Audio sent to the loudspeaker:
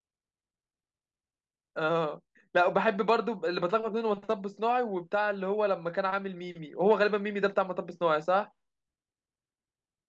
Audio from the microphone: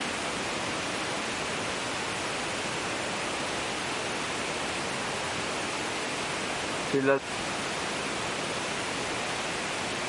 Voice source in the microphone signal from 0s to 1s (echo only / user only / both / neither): neither